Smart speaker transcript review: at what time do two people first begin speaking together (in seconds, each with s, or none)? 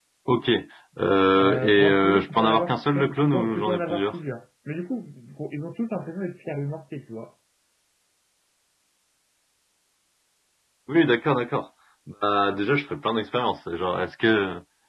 1.4 s